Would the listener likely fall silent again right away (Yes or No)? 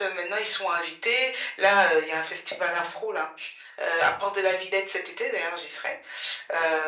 Yes